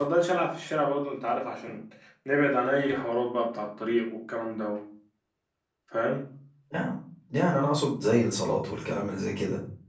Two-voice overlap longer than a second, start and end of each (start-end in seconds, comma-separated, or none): none